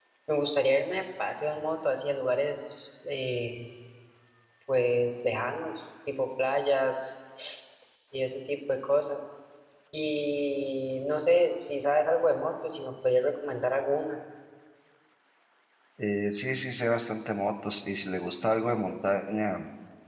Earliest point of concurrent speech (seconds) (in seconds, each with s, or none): none